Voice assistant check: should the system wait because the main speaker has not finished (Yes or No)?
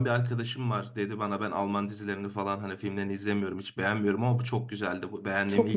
No